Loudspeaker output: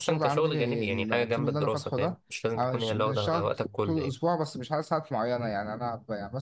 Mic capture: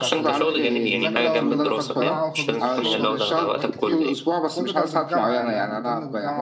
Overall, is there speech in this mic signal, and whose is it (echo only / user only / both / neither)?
both